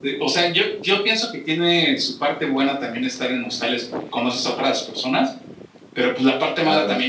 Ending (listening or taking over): listening